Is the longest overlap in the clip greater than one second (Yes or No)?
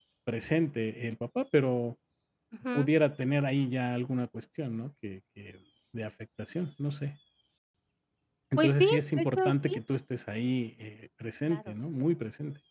Yes